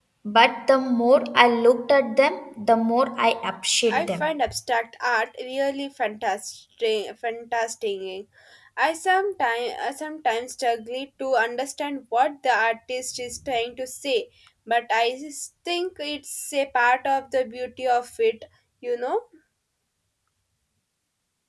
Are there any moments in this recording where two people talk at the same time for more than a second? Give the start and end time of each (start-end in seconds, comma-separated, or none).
none